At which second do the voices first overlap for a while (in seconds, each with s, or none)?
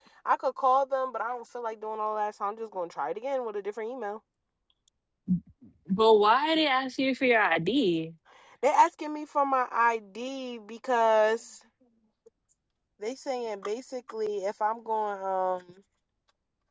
none